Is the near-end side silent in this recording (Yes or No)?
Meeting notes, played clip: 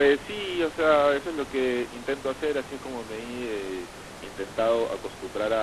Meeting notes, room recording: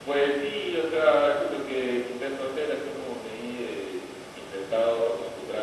Yes